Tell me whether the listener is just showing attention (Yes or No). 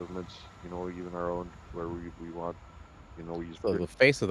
No